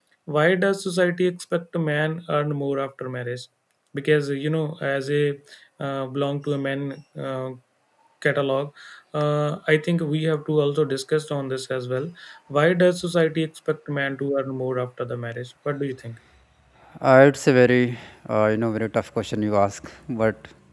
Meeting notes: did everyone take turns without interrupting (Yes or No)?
Yes